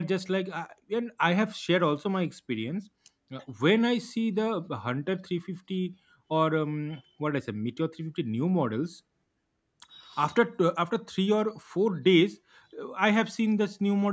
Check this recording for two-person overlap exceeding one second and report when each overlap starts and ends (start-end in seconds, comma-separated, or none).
none